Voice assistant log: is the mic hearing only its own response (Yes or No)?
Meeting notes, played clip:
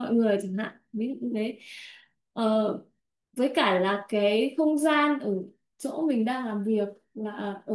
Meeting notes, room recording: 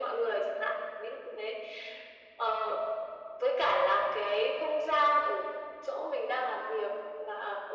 Yes